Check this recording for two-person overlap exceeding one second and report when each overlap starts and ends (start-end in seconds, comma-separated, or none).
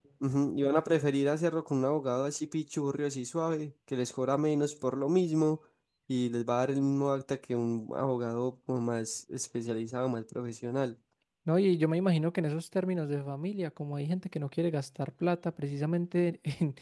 none